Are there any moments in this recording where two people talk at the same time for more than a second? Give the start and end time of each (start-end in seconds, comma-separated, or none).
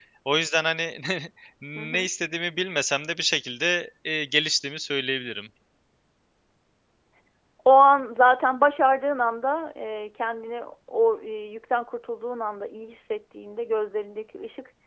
none